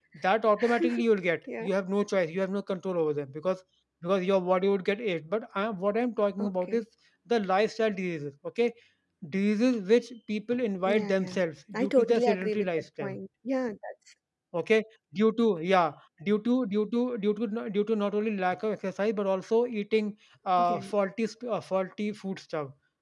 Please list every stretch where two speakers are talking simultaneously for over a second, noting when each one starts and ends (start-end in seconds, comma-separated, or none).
11.7-13.2